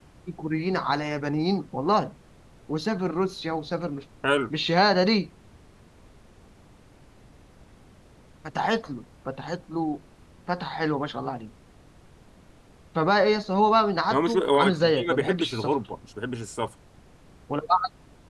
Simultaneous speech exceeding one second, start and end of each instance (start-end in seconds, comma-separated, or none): 14.1-15.7